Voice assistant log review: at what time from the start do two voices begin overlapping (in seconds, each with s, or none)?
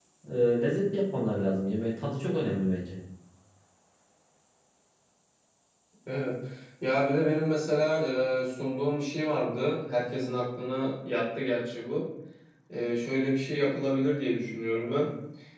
none